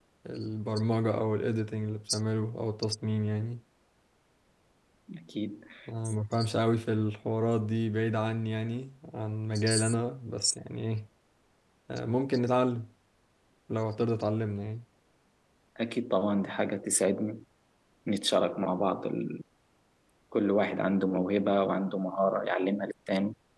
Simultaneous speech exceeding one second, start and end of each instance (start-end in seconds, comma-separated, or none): none